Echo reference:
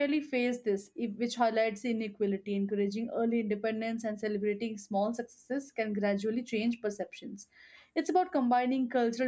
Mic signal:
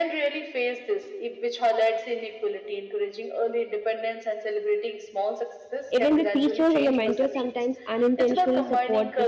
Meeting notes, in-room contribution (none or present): present